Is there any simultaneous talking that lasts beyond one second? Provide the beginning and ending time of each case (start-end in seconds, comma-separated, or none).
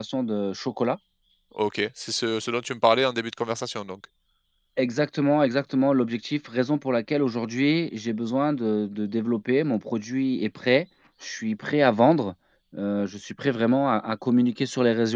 none